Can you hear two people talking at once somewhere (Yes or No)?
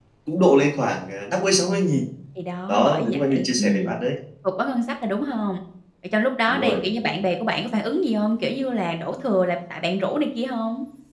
Yes